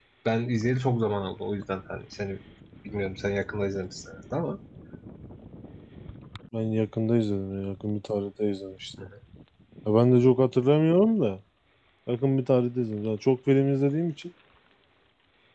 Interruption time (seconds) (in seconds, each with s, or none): none